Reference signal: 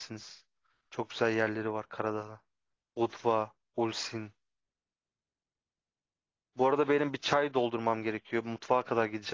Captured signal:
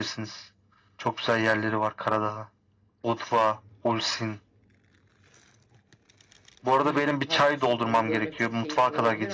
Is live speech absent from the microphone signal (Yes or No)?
No